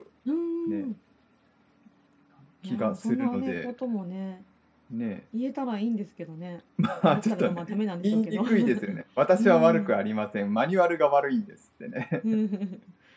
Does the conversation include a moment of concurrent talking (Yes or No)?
Yes